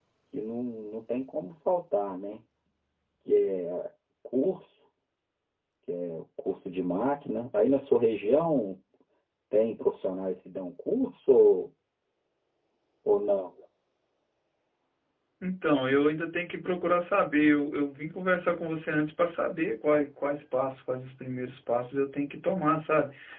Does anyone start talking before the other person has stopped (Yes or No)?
No